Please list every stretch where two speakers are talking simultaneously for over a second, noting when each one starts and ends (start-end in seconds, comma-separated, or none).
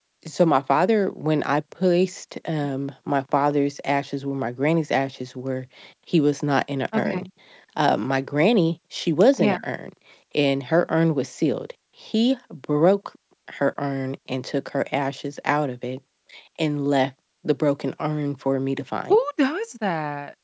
none